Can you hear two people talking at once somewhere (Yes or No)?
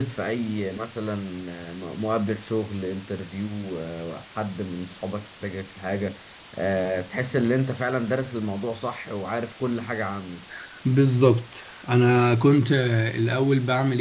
No